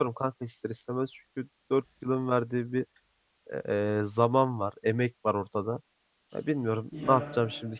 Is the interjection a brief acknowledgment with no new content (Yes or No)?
Yes